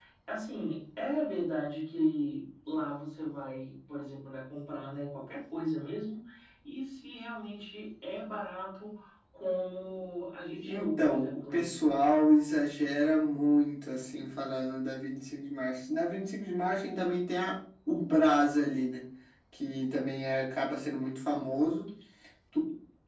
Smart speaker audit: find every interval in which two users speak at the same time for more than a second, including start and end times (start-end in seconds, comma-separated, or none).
10.5-11.8